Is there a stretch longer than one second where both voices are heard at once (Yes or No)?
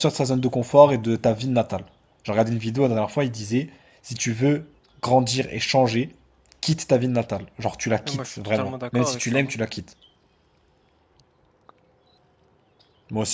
Yes